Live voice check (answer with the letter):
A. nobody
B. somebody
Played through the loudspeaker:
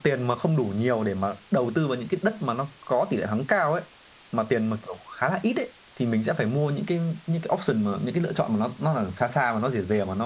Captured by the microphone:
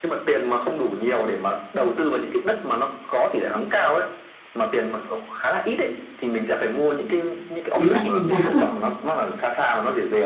B